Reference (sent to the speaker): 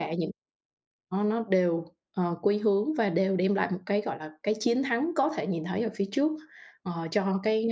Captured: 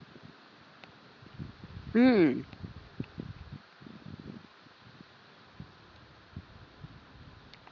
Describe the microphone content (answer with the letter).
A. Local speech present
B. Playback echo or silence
A